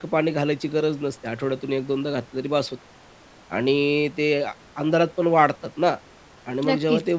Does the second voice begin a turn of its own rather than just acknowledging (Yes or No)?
No